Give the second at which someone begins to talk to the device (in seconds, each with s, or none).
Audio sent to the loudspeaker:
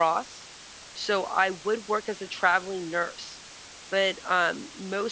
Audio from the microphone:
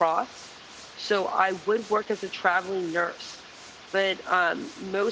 none